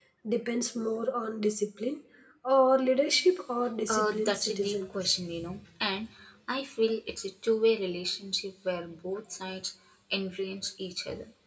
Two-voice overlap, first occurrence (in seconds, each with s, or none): 3.9 s